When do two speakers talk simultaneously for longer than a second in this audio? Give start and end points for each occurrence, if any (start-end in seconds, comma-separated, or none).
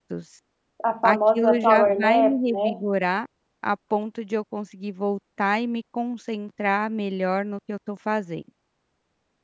1.0-2.7